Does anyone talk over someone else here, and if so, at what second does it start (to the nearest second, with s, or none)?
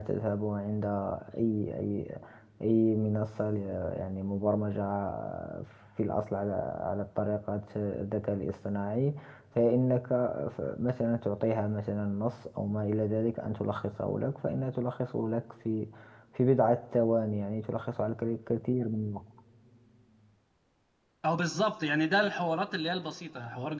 none